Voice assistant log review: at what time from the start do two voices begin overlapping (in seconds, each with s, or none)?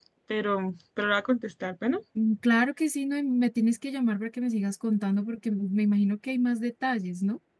none